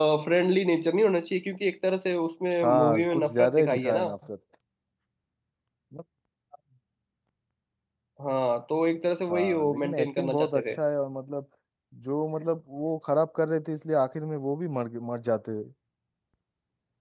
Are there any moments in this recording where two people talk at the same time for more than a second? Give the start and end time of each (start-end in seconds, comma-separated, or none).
2.6-4.1, 9.3-10.8